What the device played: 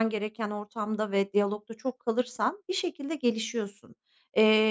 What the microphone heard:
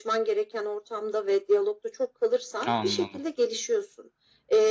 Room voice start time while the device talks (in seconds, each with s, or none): 2.7 s